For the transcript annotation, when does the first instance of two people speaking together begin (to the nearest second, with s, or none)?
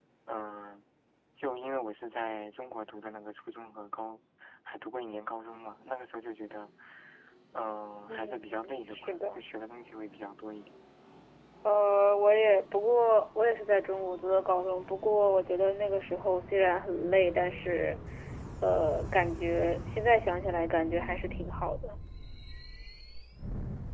8 s